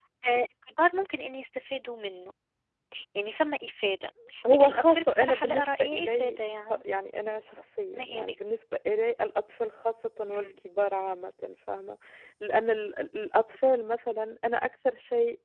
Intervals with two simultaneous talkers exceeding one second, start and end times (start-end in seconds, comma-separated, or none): 4.5-6.8